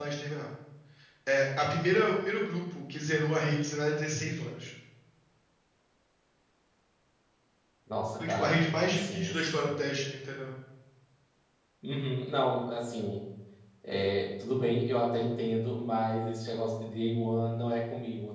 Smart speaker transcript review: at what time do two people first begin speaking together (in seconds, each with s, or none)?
8.2 s